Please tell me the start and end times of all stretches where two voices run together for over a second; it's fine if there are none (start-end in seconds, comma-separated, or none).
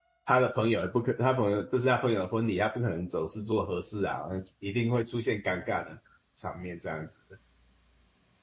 none